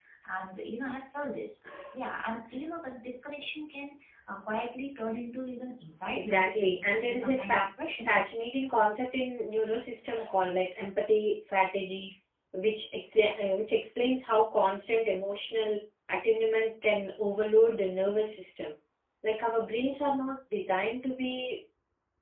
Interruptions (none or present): present